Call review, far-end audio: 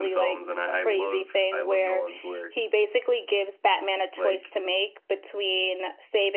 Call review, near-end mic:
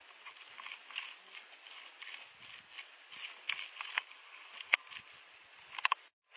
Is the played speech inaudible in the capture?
Yes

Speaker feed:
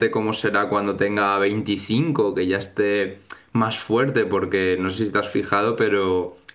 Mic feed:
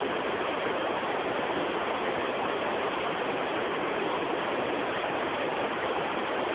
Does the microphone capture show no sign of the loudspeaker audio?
Yes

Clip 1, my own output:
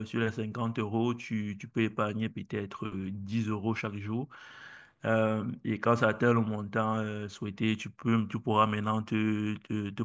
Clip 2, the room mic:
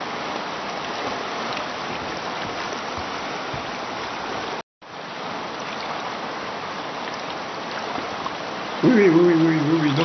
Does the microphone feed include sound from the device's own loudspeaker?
No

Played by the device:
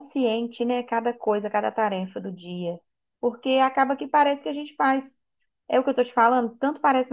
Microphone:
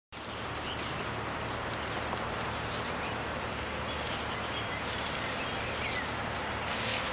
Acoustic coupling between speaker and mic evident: No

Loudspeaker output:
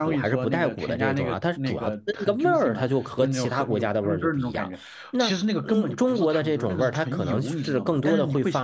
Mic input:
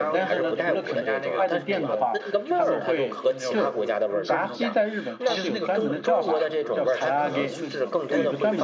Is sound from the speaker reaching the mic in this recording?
Yes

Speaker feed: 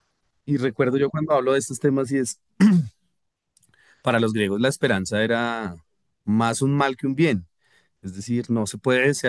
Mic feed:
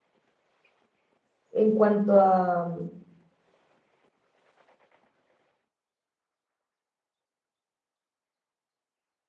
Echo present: No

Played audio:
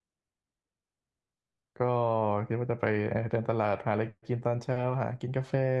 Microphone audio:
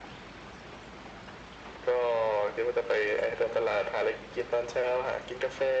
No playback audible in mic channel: No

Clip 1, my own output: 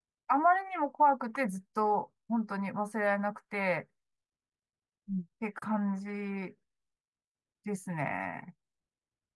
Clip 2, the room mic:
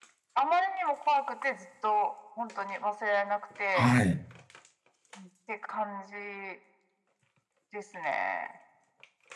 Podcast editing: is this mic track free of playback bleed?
No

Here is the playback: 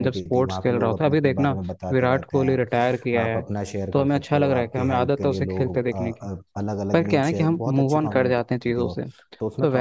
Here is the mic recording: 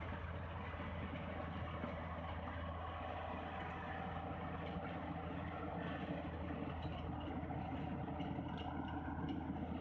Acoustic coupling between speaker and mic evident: No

